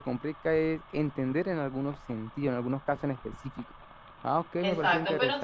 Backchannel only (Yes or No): No